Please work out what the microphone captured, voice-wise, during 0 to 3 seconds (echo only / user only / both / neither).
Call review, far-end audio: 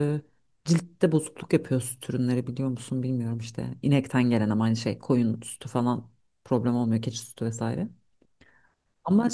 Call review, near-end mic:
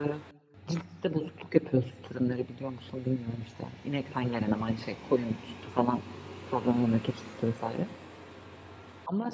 echo only